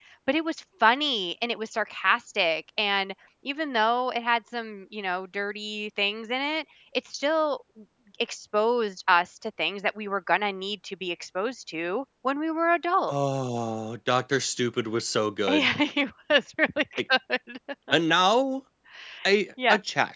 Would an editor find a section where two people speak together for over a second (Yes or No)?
No